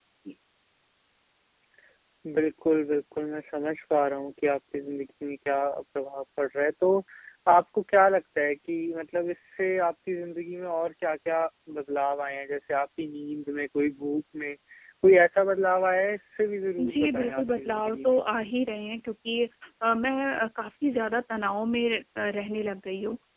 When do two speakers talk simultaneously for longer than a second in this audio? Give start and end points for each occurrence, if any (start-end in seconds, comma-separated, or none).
16.8-18.2